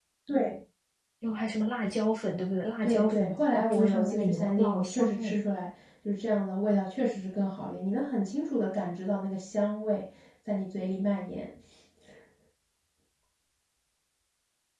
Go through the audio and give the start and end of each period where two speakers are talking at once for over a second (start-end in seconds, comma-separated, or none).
2.8-5.3